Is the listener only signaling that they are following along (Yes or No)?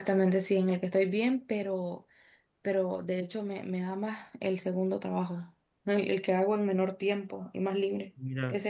Yes